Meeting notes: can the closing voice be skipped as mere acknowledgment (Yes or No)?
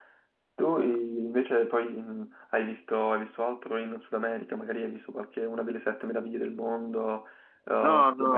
No